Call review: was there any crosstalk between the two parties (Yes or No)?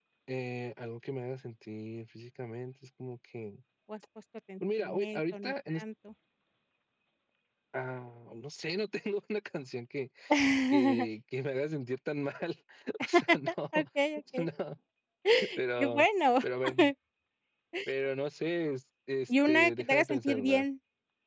Yes